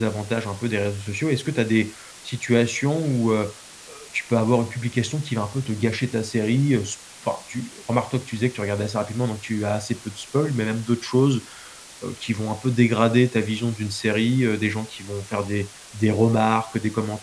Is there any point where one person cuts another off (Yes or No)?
No